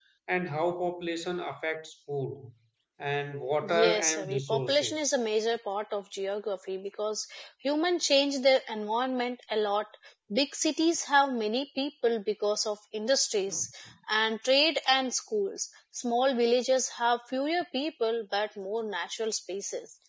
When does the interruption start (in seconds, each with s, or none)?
3.7 s